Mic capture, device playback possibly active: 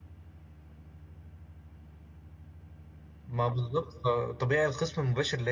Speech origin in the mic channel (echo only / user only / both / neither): user only